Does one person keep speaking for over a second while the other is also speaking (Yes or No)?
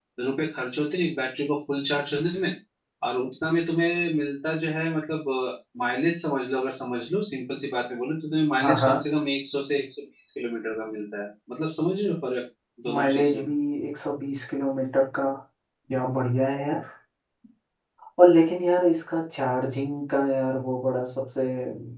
No